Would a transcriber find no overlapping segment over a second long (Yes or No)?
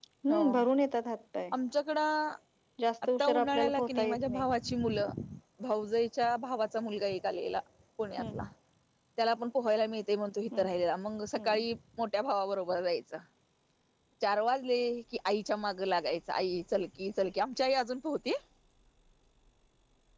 No